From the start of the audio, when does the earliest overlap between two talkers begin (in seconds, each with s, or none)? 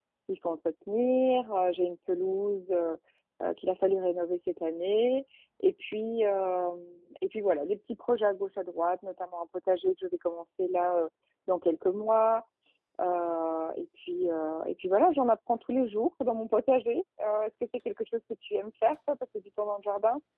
none